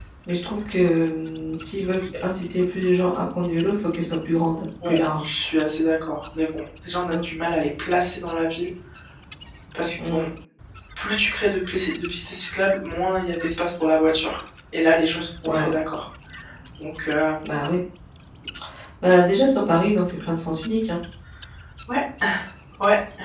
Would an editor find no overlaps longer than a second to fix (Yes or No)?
Yes